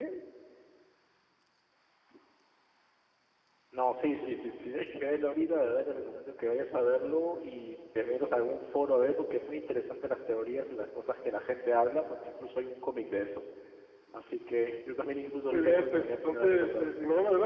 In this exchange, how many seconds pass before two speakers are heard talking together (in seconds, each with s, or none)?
15.5 s